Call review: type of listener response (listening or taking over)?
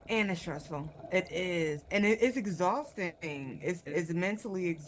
listening